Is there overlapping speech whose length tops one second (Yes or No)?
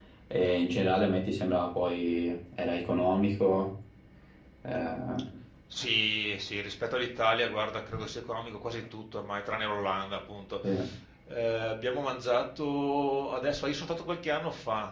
No